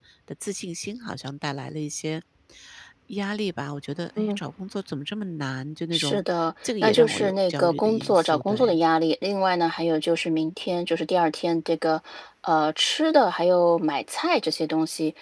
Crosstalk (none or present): present